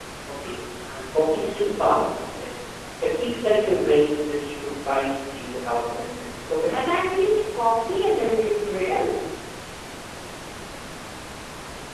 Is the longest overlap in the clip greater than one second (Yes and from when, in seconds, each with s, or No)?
No